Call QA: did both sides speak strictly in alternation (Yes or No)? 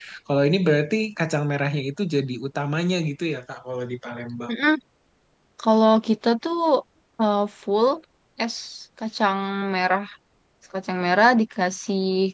Yes